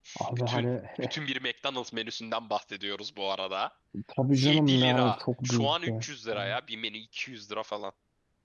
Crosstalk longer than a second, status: present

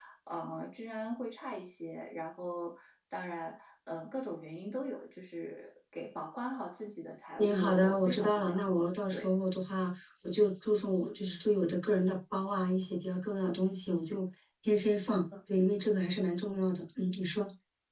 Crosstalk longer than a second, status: present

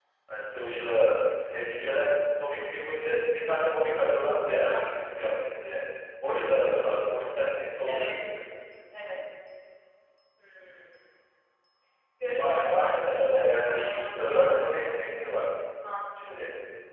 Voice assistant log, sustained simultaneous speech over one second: present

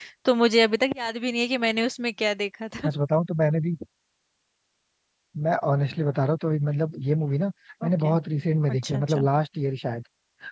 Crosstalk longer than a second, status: none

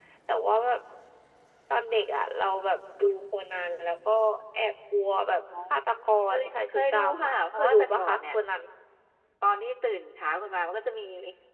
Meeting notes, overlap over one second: present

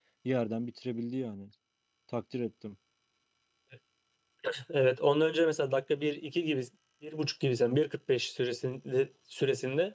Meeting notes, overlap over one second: none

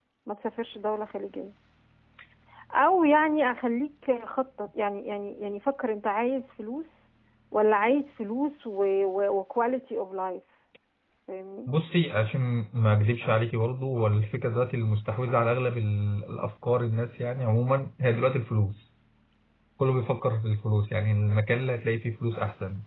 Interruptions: none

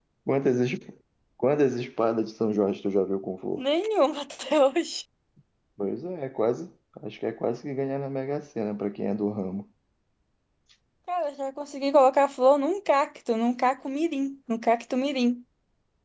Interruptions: none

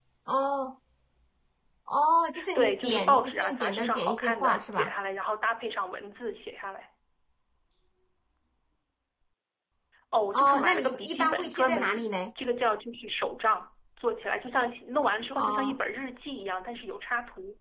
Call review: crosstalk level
present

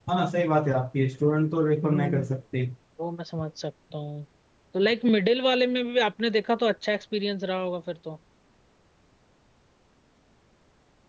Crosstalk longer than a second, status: none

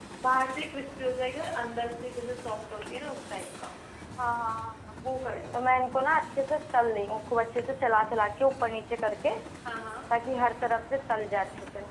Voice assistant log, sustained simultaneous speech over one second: none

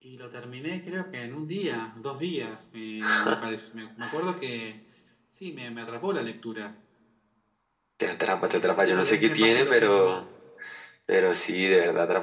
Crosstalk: present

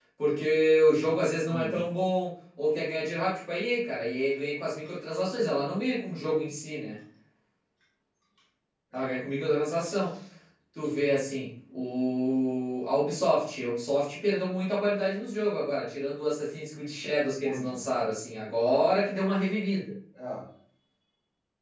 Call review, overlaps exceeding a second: none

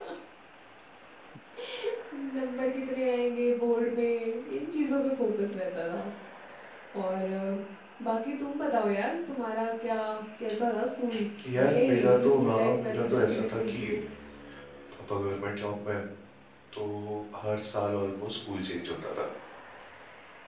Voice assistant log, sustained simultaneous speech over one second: present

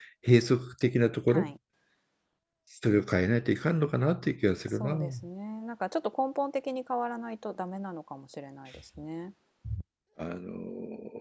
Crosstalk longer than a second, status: none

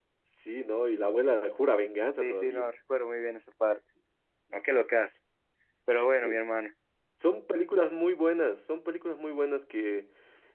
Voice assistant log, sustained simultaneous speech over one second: none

